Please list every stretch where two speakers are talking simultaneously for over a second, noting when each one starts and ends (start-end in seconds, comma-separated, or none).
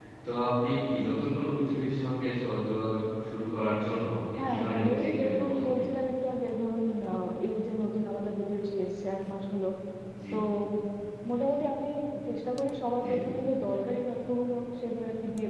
4.4-5.8